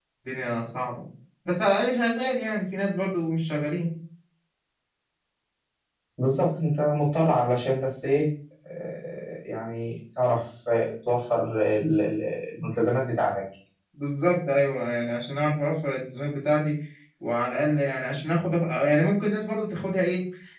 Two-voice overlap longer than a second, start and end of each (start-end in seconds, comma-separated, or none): none